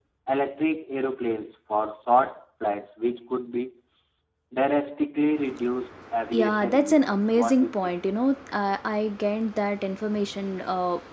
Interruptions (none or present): present